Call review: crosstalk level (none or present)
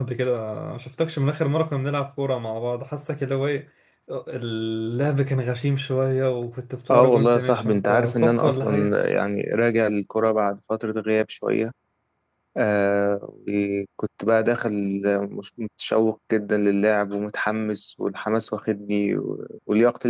present